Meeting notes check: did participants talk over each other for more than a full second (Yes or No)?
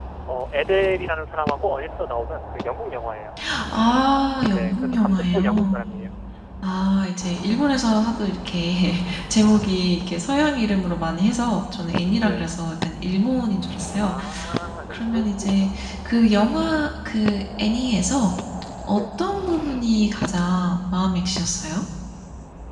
Yes